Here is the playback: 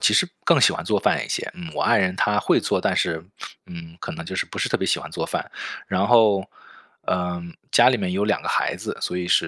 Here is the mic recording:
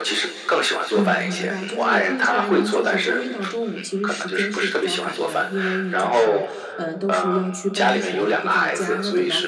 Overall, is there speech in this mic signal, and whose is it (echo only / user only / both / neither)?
both